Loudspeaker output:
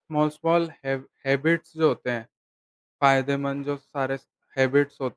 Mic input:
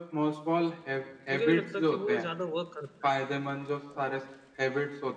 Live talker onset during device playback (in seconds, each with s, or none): 1.3 s